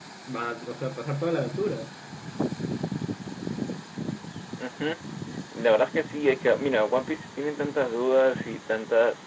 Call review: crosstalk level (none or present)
none